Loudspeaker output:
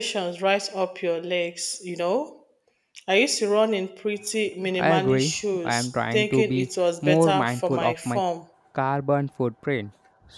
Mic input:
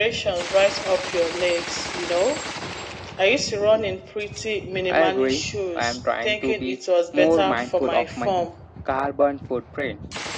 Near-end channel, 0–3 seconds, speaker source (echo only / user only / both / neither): echo only